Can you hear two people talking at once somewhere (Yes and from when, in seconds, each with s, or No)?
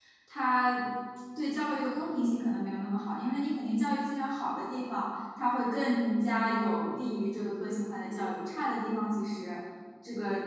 No